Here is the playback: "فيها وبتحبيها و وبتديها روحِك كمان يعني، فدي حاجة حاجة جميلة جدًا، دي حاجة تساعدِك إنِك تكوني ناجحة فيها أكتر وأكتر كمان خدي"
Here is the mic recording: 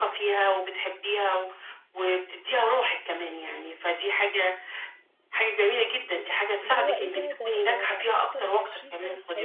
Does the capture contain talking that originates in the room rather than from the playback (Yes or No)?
Yes